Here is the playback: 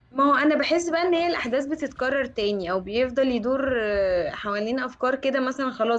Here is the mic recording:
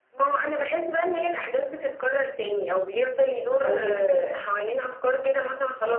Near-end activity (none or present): present